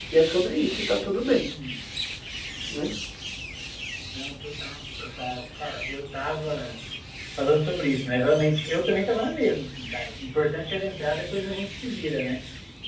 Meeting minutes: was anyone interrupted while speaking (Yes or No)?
No